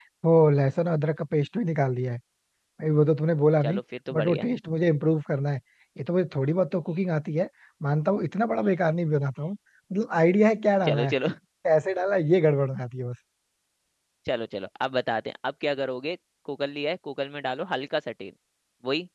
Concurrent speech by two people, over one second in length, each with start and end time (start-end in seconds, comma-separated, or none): none